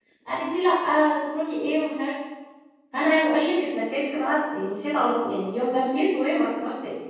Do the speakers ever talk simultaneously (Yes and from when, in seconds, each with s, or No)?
No